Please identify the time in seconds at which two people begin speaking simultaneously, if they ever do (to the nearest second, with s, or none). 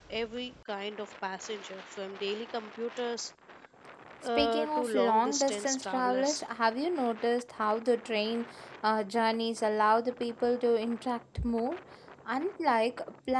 4 s